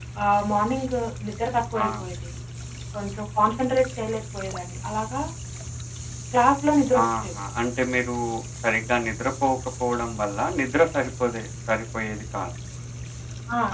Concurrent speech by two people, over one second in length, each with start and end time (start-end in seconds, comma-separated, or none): none